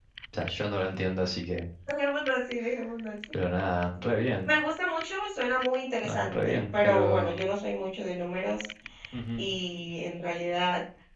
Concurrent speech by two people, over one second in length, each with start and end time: 6.0-7.4

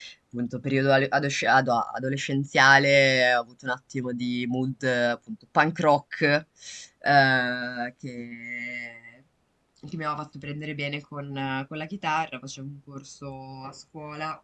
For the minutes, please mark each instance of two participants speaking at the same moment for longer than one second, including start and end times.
none

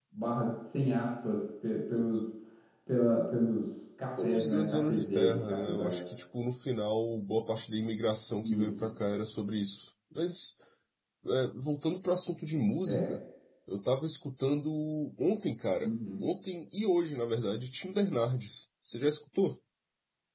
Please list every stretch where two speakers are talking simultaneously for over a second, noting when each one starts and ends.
4.2-6.0

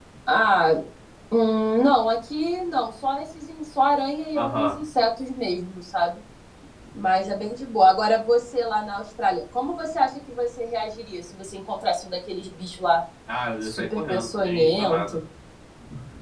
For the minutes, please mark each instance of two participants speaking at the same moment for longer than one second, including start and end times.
13.6-15.2

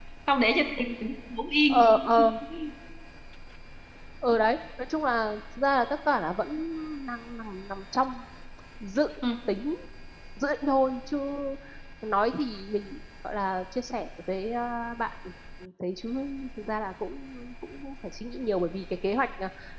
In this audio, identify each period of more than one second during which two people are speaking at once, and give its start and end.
none

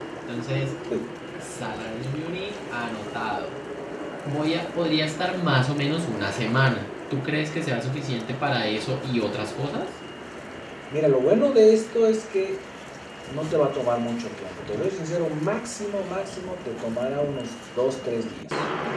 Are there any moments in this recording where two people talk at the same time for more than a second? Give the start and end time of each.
none

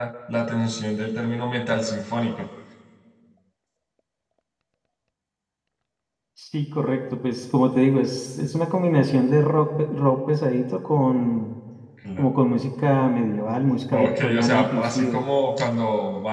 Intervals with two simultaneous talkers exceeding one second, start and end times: 13.9-15.2

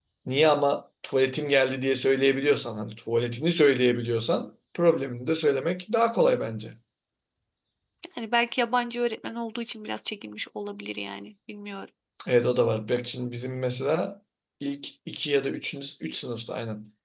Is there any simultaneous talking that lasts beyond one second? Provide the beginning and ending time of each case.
none

